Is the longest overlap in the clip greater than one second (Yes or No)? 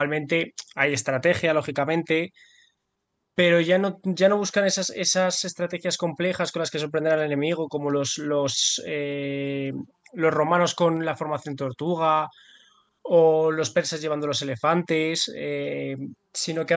No